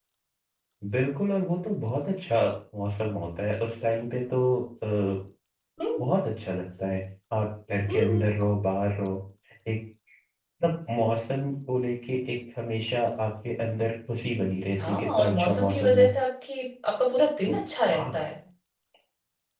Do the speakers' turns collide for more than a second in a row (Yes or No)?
Yes